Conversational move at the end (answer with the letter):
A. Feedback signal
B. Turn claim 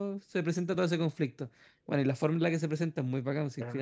B